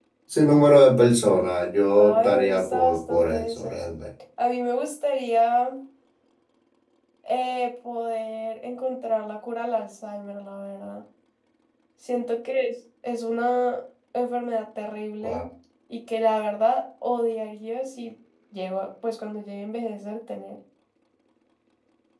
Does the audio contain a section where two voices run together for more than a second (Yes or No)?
Yes